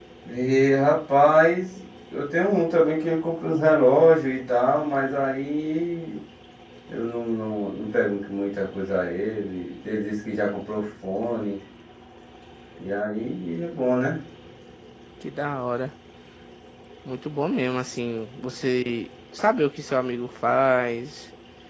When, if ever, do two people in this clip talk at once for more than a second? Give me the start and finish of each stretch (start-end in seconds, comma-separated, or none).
none